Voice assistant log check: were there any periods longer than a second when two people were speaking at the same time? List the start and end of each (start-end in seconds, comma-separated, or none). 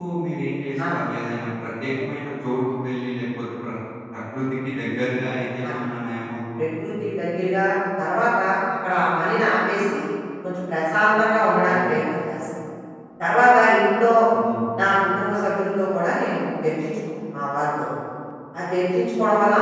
none